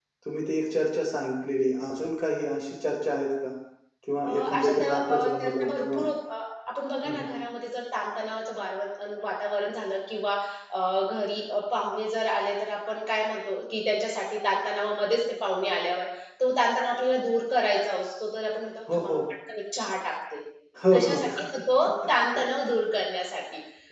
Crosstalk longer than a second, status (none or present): present